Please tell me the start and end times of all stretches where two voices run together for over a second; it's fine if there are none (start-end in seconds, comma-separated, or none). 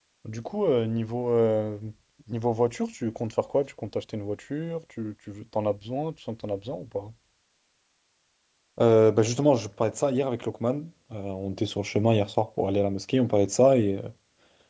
none